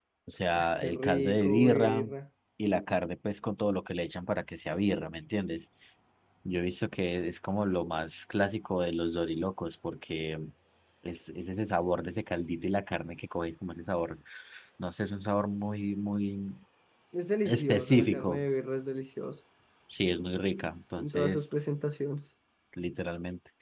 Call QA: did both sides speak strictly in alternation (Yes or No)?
No